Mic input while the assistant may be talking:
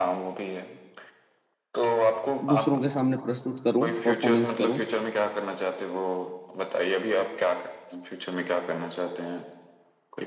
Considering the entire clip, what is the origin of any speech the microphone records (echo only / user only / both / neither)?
both